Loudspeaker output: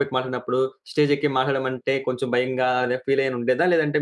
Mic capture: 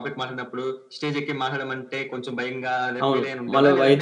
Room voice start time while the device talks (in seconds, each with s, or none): 3.0 s